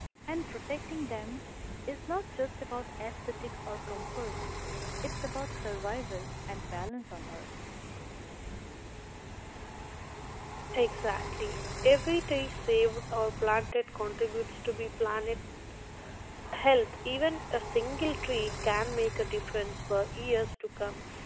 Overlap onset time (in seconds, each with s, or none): none